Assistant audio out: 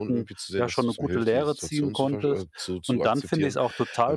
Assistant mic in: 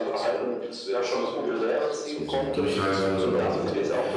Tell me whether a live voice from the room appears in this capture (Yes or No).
Yes